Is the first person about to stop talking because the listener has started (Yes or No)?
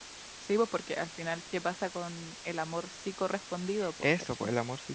Yes